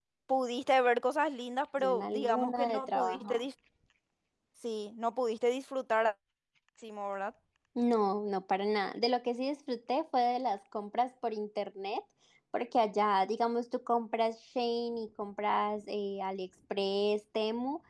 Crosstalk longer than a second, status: present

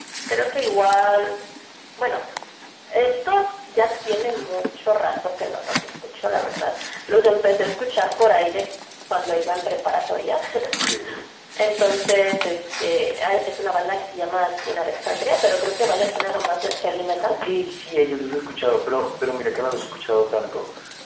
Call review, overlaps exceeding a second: none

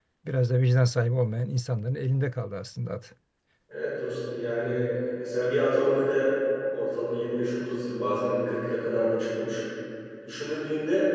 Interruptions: none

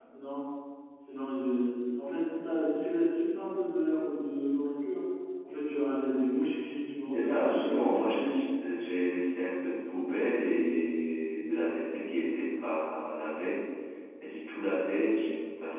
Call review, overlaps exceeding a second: present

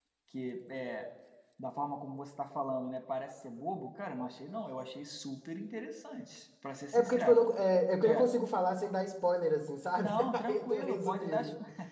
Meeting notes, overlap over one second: present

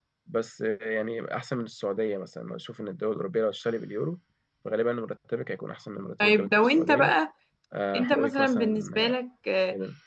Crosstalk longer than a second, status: present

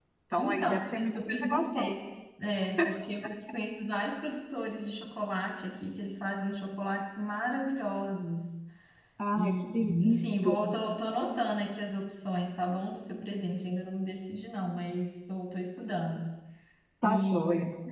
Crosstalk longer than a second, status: present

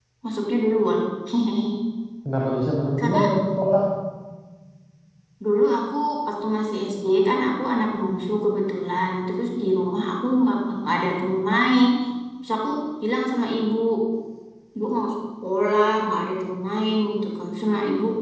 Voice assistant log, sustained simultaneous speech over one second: none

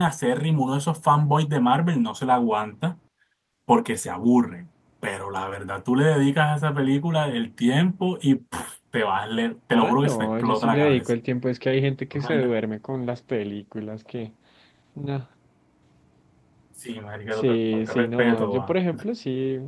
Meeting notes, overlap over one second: present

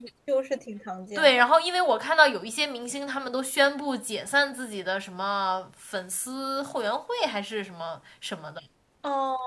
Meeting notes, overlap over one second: none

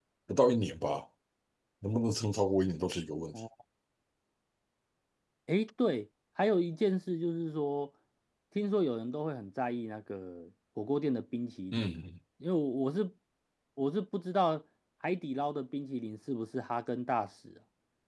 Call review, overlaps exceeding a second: none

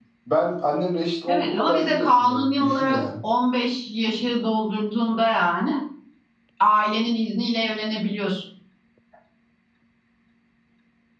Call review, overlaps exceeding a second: present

